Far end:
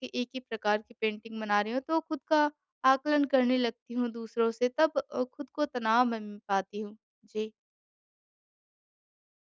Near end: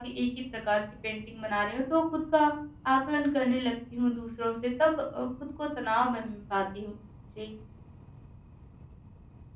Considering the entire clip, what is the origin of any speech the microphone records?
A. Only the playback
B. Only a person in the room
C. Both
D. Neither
A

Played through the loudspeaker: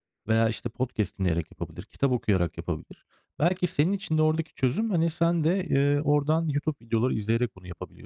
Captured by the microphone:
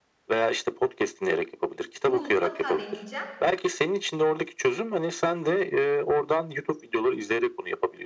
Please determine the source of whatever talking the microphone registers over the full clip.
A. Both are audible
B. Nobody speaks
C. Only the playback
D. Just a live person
A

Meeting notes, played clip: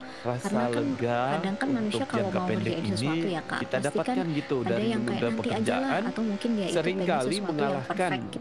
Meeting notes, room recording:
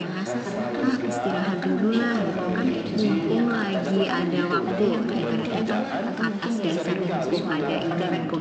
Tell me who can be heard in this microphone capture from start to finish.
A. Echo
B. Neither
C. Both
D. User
C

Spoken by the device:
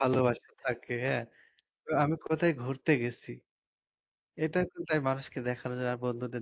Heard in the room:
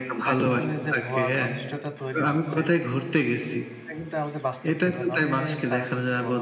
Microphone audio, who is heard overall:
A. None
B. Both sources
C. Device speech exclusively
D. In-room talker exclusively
B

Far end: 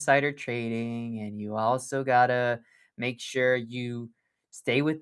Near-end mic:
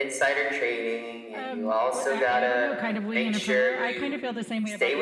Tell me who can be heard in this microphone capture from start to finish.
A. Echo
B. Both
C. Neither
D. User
B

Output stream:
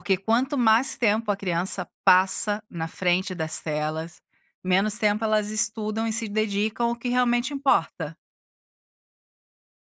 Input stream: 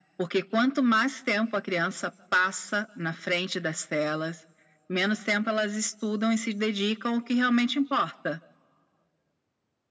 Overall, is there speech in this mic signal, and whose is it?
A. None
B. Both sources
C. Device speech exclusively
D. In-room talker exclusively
C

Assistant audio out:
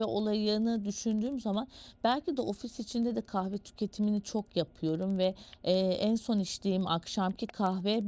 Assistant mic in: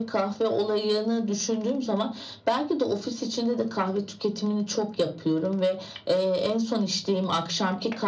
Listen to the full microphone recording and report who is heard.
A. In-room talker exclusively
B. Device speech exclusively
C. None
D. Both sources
B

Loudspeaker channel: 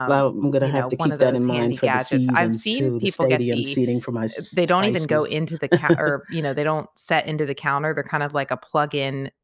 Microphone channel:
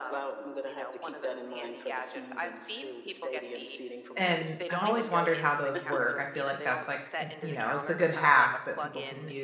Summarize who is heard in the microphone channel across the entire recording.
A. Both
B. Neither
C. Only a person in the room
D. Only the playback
A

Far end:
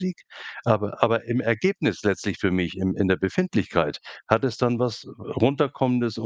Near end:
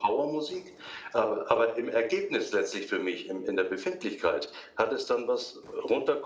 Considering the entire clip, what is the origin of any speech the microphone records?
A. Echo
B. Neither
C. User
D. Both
A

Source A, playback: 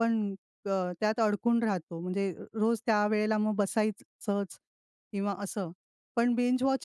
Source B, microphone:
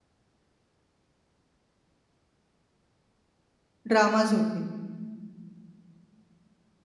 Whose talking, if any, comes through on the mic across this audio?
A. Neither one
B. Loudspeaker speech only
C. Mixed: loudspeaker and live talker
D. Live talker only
D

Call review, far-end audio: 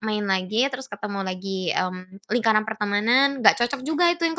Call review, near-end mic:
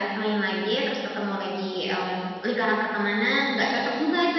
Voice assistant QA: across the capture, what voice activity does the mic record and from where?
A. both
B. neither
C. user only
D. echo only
D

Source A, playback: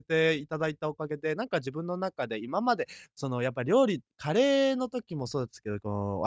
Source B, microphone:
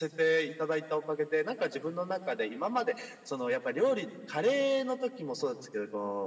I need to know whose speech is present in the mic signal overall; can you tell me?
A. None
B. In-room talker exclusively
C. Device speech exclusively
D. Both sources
C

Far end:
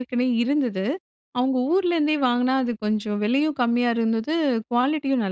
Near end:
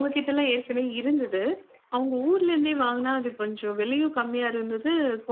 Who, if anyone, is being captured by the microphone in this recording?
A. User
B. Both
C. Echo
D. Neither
C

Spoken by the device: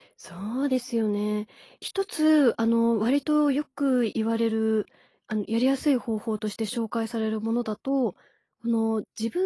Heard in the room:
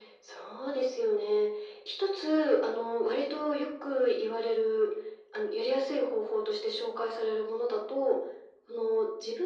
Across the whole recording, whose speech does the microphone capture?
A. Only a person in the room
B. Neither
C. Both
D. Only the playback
D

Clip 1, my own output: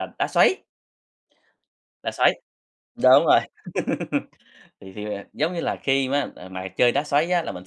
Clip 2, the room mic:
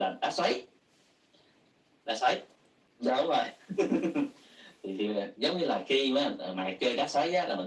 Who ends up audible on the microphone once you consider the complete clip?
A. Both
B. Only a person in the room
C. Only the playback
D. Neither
C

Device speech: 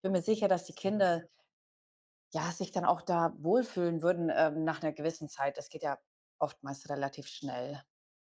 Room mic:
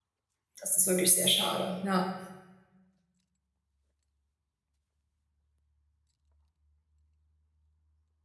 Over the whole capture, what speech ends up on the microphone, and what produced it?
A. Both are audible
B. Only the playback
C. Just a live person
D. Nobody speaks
C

